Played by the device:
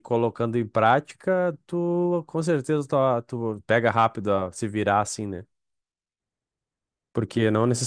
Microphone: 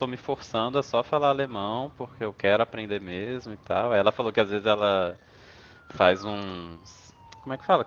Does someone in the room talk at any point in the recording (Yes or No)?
Yes